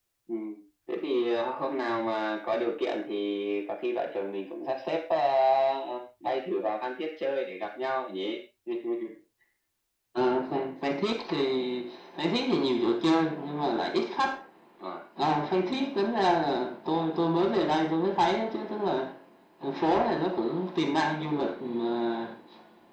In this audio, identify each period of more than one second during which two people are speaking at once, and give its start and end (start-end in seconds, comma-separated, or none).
none